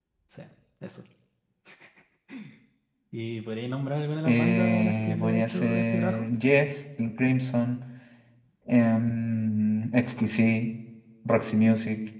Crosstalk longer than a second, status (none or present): present